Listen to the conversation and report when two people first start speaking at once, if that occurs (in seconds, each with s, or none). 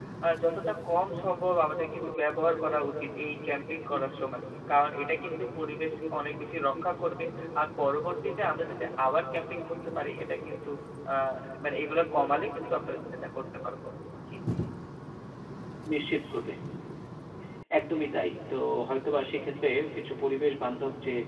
none